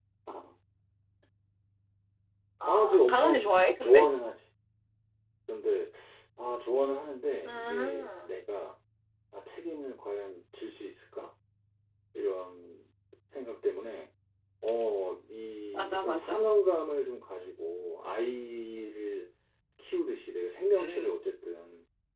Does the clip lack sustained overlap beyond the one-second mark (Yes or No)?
No